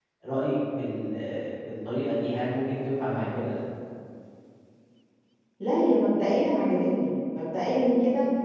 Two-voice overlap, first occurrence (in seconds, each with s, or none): none